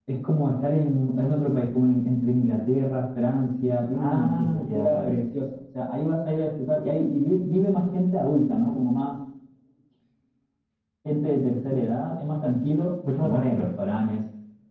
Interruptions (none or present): present